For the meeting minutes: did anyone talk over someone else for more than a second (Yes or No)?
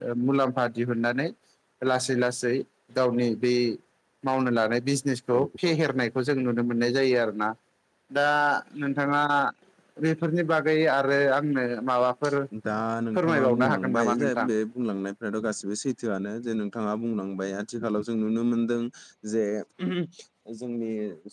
Yes